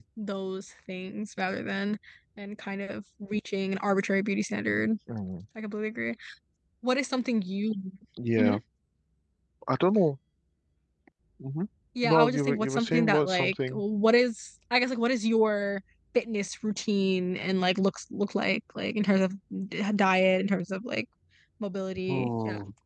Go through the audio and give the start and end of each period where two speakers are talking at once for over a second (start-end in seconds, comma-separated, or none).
12.0-13.8